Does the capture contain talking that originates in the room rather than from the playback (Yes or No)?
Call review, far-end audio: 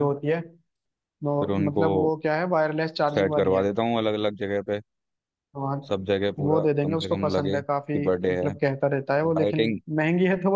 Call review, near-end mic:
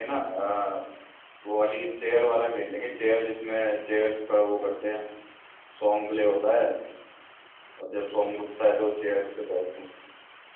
Yes